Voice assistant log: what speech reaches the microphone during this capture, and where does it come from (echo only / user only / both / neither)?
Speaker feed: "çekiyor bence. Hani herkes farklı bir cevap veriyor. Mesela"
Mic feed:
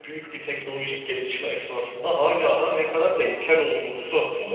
user only